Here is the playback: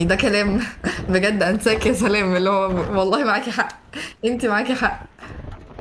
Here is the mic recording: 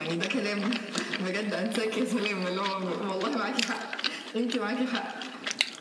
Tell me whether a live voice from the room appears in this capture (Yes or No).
No